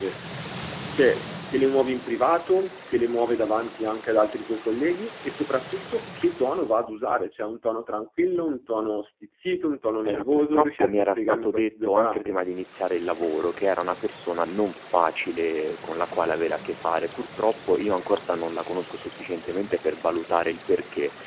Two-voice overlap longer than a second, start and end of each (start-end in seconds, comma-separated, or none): 10.0-12.4